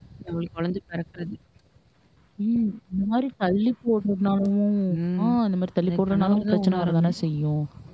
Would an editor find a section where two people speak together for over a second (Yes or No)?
Yes